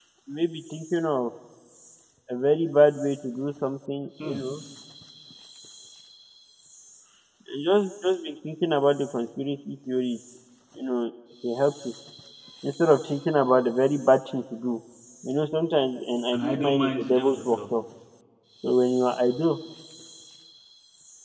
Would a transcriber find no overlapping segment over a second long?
No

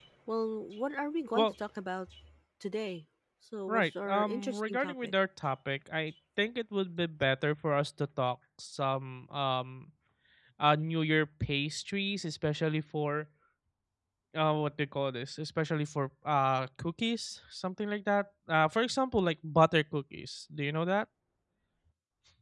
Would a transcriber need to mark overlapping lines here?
Yes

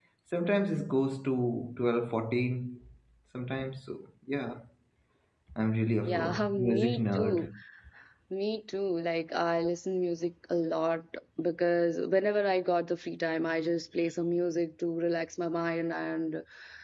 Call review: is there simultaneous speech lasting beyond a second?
Yes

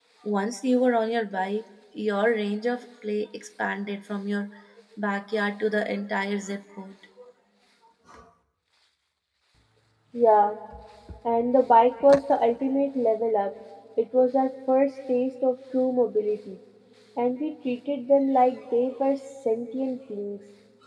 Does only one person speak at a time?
Yes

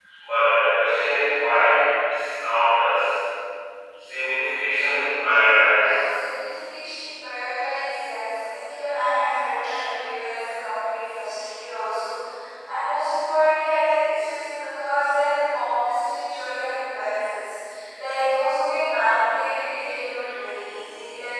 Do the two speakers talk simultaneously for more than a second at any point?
No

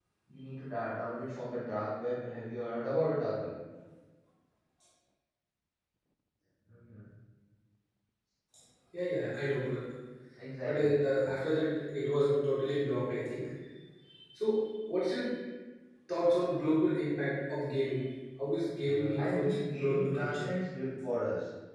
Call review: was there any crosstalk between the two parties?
Yes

